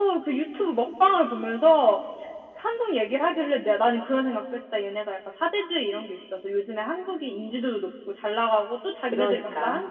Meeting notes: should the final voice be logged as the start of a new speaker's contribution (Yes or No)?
No